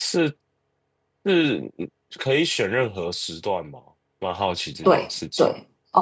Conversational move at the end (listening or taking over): taking over